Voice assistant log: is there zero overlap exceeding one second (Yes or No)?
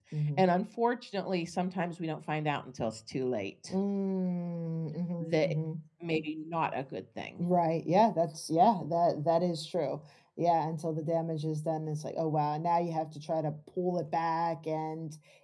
Yes